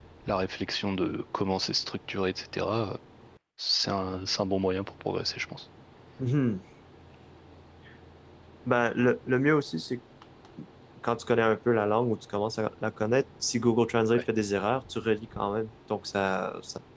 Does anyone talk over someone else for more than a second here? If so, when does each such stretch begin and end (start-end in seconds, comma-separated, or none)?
none